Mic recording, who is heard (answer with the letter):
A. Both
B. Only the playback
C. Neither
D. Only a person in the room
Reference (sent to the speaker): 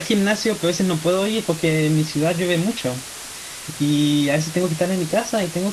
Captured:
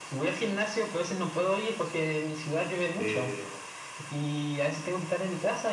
A